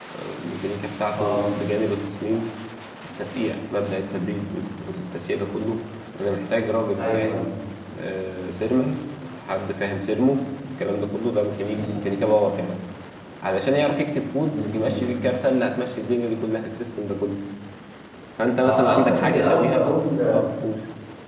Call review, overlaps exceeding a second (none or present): present